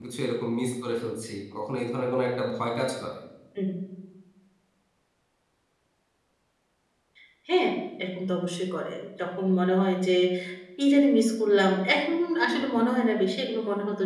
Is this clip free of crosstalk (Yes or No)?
Yes